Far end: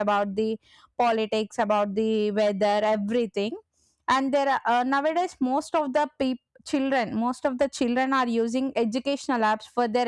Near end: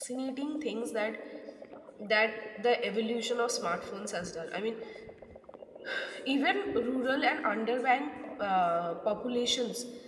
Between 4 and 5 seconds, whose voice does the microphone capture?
user only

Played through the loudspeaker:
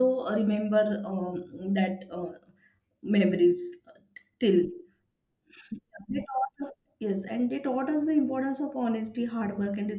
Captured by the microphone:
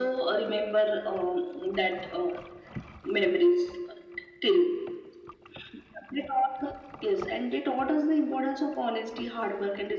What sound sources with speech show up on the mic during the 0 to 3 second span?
echo only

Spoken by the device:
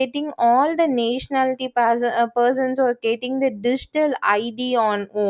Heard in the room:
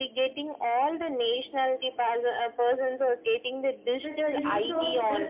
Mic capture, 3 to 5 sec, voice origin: both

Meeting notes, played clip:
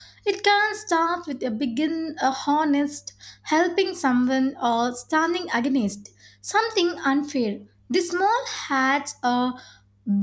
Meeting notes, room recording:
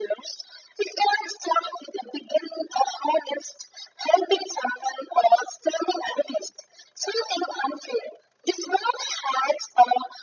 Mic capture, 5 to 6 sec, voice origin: echo only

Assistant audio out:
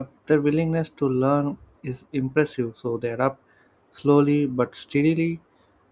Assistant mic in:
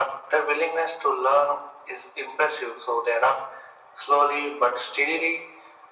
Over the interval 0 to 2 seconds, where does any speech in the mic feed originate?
echo only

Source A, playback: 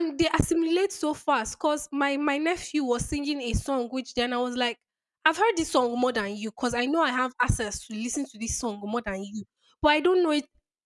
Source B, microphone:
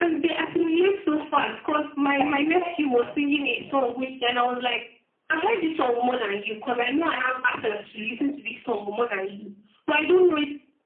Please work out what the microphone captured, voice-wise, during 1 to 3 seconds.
both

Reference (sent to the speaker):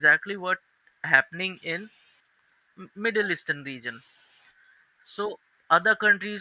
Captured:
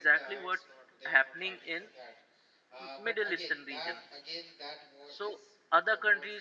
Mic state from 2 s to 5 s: both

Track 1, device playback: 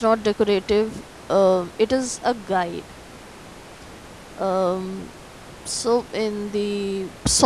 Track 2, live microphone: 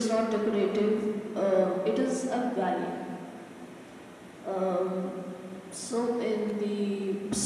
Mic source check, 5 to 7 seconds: echo only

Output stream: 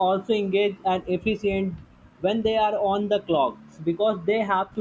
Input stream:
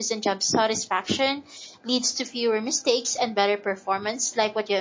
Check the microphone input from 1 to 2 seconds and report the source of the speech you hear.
user only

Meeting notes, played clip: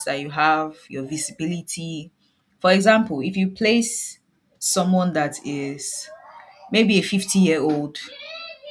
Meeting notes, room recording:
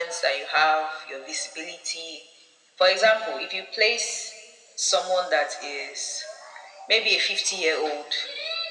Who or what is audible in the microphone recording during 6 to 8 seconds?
echo only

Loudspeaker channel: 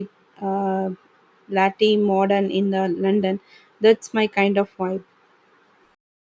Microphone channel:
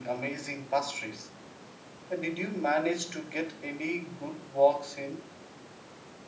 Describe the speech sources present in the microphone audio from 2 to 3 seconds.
user only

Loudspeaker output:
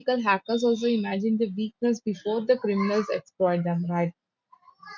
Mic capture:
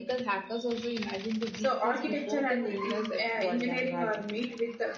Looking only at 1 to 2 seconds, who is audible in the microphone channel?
both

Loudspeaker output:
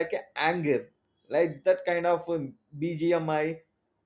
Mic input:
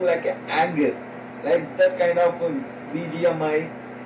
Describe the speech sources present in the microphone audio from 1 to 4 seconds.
echo only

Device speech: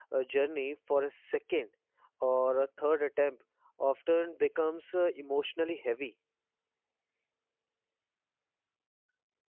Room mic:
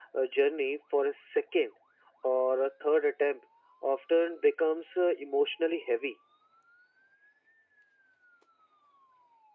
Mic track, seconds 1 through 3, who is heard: echo only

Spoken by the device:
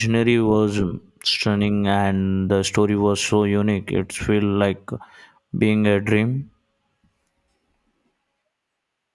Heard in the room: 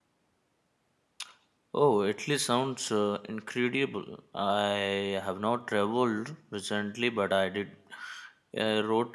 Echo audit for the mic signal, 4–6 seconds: user only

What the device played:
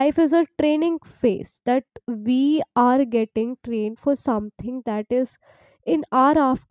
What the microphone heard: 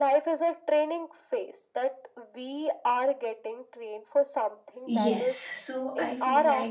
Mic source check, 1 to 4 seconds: echo only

